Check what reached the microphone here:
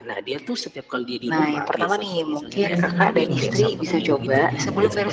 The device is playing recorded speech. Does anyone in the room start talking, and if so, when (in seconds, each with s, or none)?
2.6 s